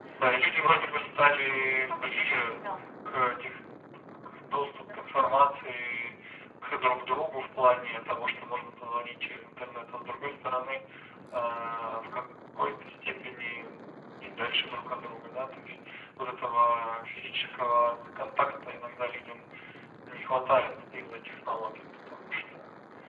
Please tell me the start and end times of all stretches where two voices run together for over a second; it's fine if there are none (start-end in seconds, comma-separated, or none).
0.6-2.5